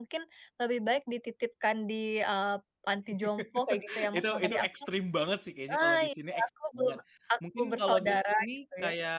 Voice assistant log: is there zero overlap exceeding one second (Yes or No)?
No